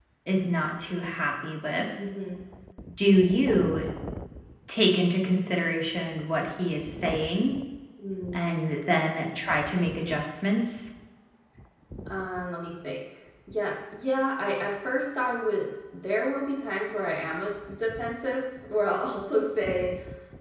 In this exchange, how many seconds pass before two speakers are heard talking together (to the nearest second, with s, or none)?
none